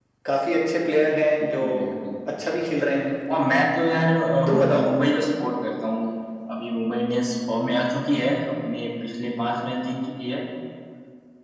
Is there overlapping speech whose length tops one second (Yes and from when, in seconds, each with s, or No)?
No